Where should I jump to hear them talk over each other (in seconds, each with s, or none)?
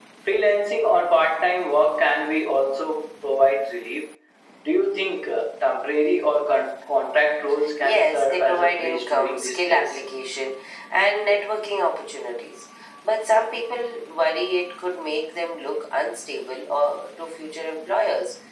7.8 s